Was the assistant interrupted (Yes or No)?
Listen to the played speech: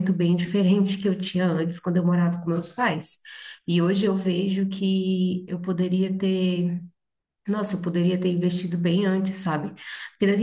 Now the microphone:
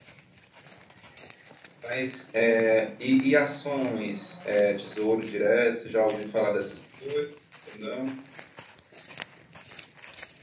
Yes